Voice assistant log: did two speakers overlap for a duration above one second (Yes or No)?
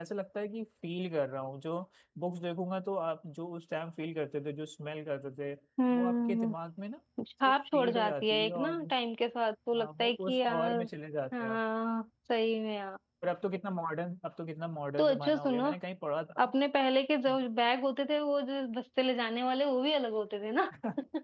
Yes